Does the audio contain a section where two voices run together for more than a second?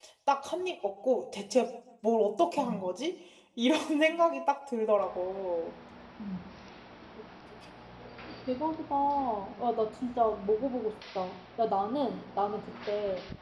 No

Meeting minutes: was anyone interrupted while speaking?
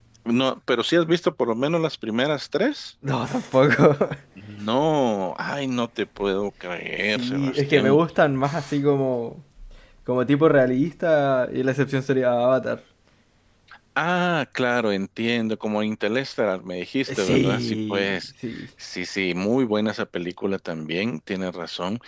Yes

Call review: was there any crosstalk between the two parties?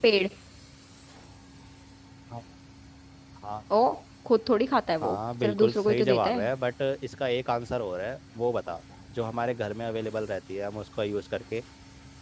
Yes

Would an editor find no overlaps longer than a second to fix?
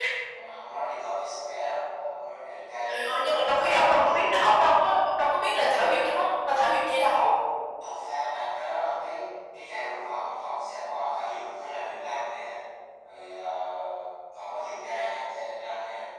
No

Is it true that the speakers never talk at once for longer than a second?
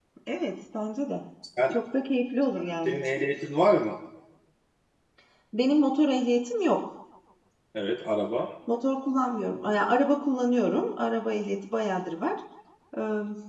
Yes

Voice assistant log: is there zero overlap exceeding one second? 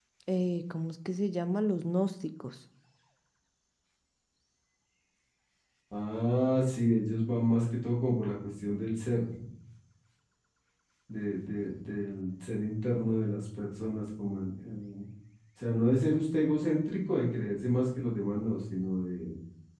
Yes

